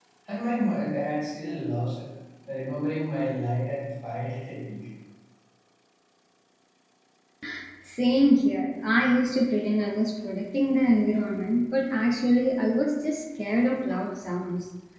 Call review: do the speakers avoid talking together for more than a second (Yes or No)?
Yes